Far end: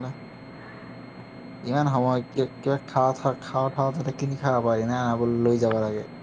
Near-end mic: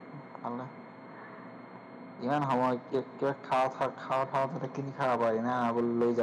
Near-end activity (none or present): none